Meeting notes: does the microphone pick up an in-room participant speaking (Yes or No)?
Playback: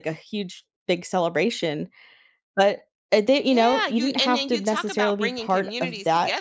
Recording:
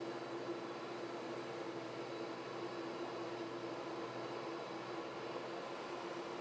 No